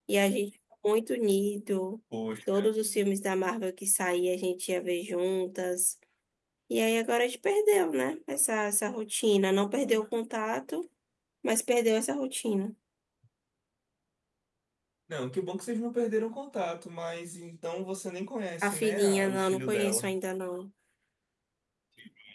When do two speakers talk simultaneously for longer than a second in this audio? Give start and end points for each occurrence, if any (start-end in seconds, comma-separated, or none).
18.6-20.1